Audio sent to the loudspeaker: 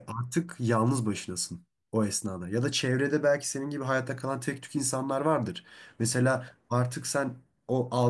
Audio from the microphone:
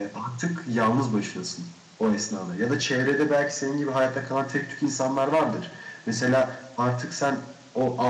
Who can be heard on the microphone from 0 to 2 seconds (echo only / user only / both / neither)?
echo only